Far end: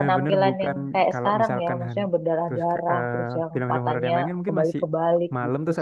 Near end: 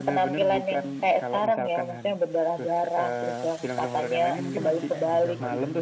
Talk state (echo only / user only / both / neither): both